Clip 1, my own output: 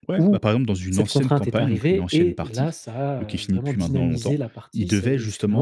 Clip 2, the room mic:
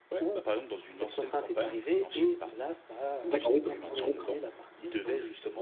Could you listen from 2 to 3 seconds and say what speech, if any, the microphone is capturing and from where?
echo only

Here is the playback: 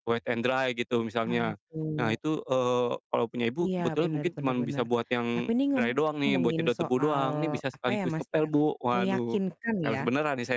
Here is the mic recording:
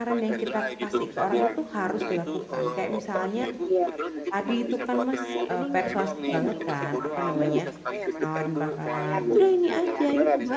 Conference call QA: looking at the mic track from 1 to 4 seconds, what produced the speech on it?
both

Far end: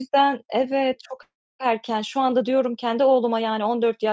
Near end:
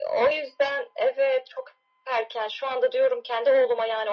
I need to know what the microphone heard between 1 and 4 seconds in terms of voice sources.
echo only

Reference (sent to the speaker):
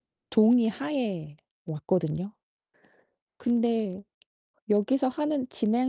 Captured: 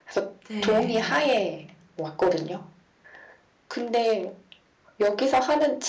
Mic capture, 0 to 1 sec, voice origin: both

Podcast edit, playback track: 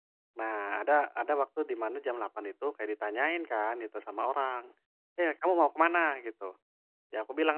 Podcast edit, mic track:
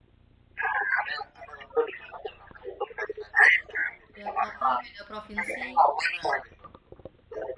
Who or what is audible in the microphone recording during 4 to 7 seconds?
both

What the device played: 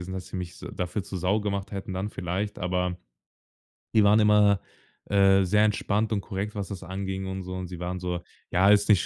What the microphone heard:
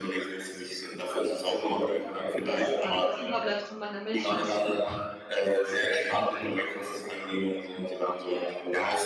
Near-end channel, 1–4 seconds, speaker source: both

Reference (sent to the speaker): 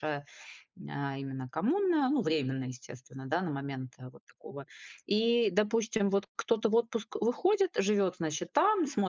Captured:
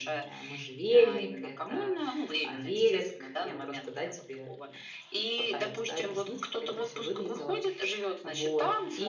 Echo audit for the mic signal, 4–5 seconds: both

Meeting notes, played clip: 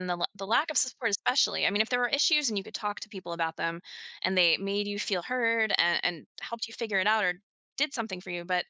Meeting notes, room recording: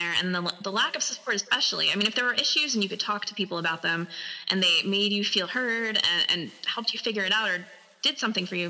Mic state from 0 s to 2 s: echo only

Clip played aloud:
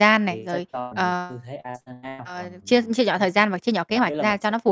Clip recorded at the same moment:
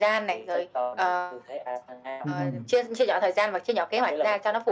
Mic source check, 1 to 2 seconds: echo only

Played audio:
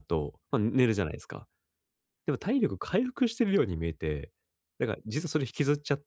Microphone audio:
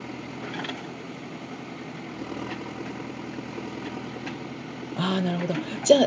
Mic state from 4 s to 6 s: user only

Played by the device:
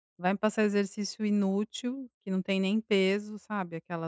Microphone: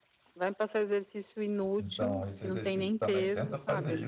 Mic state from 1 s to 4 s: both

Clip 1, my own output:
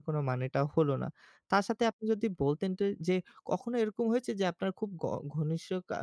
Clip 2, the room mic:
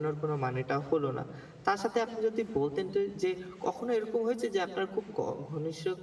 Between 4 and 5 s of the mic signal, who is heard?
echo only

